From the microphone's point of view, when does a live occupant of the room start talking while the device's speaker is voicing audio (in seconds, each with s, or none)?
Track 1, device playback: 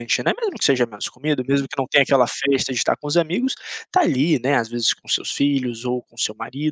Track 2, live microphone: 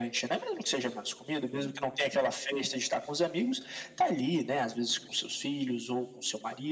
none